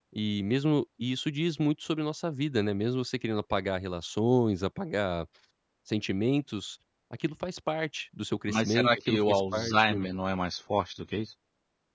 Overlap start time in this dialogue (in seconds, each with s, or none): 8.5 s